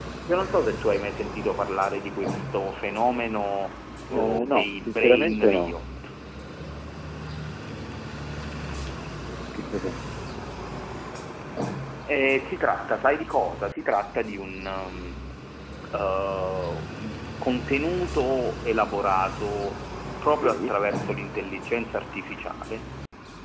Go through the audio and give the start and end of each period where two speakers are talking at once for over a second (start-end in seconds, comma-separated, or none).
4.1-5.8